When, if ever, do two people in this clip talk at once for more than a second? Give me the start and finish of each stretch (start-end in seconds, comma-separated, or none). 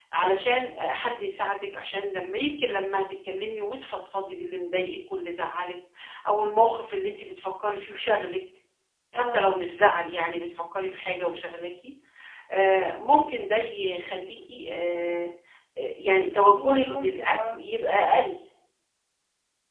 16.4-17.6